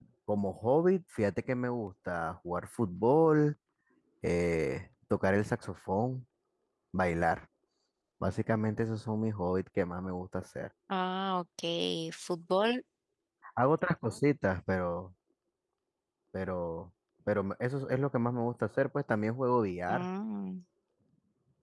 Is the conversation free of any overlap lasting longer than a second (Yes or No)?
Yes